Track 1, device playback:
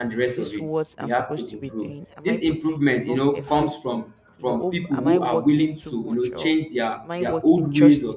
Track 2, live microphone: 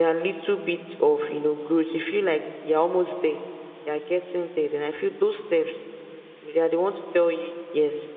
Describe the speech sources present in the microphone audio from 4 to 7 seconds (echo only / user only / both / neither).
user only